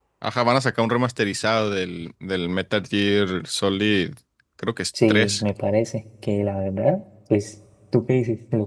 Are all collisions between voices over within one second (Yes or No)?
Yes